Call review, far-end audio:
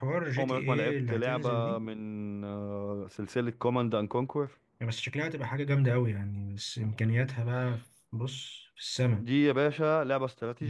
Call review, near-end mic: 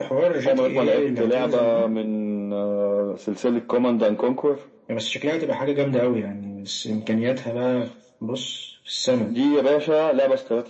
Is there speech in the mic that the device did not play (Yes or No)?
No